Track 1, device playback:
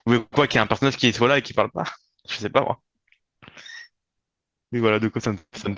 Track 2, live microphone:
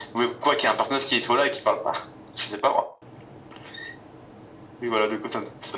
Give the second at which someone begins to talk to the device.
none

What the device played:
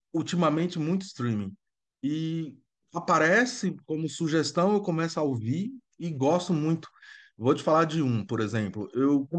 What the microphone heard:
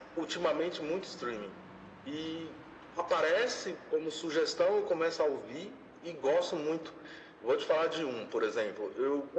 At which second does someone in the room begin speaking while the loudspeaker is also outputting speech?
none

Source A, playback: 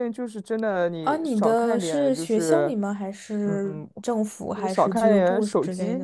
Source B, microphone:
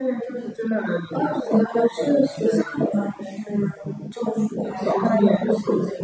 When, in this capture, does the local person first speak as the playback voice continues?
none

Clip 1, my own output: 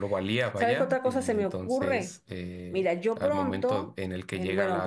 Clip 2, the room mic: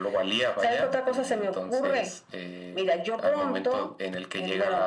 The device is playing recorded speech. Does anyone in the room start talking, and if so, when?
none

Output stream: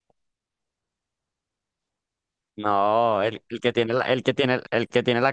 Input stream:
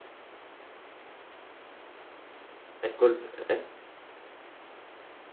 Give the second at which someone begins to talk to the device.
2.8 s

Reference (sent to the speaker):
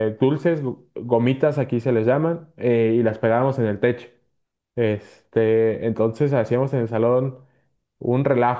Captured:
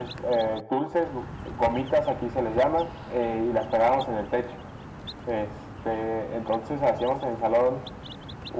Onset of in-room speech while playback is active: none

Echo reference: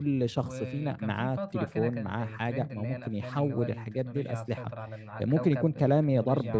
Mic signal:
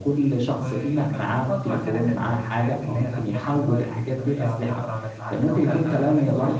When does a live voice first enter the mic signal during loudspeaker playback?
5.7 s

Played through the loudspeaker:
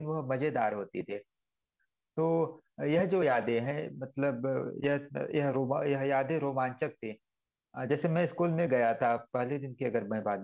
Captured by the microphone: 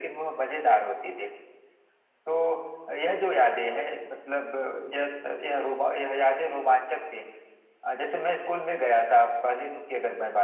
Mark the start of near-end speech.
none

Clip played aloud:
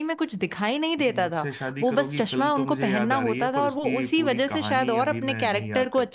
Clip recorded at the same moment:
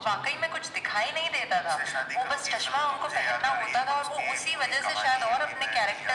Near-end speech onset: none

